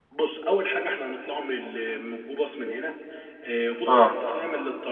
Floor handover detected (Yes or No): No